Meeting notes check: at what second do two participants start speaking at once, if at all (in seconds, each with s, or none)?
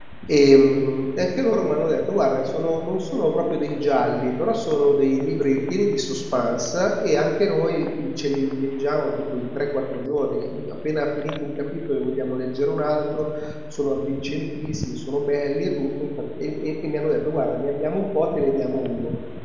none